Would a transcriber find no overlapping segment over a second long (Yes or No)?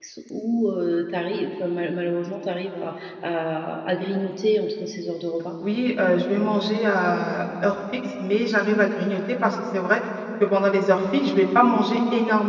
Yes